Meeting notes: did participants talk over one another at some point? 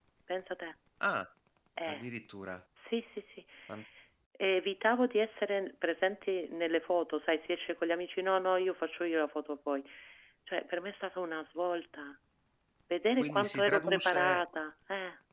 Yes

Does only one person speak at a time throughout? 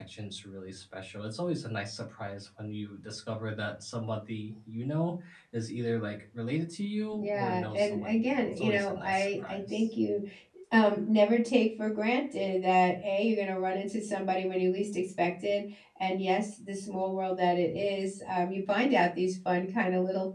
No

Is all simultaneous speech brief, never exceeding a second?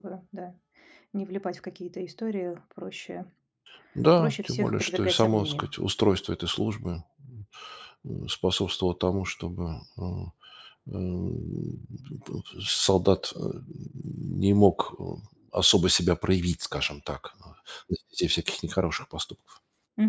No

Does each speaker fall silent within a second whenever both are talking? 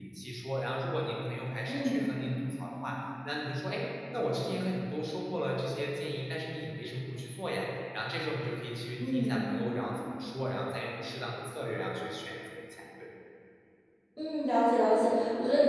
Yes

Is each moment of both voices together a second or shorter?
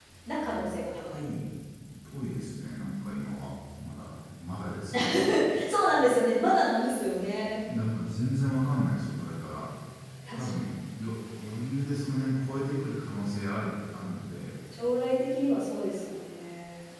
Yes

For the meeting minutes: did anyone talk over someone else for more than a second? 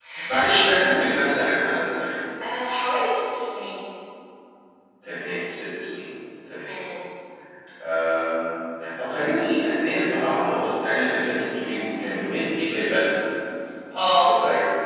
No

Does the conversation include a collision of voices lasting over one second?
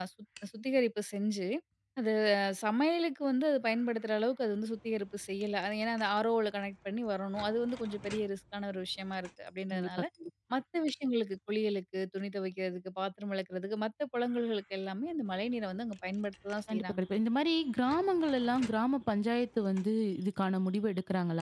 No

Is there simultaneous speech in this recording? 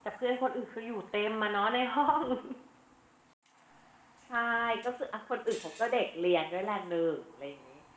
No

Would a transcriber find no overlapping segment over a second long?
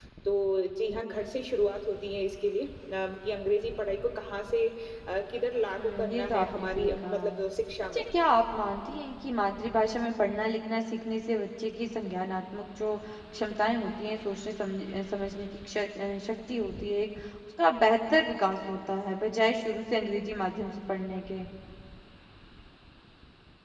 No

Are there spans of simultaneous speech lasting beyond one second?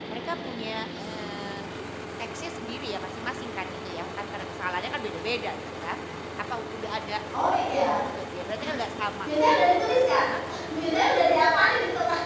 No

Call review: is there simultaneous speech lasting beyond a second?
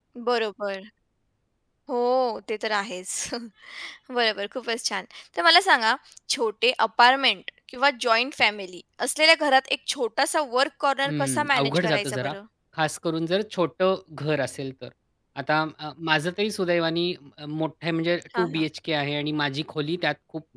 Yes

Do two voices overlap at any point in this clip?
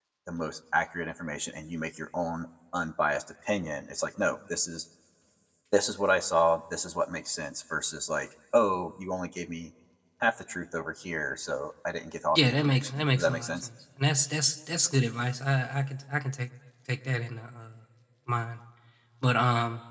Yes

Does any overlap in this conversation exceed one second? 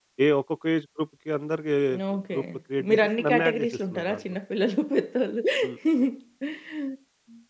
Yes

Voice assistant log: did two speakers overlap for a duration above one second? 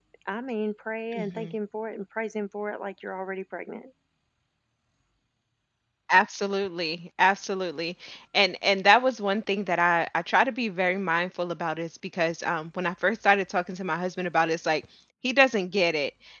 No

